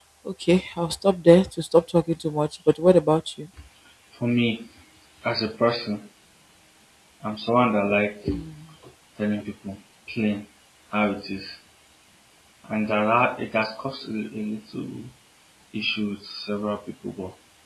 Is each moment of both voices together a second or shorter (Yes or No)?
Yes